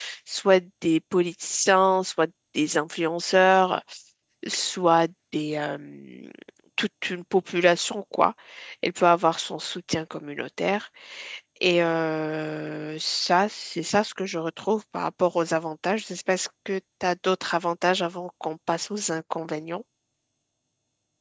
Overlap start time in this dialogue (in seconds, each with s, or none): none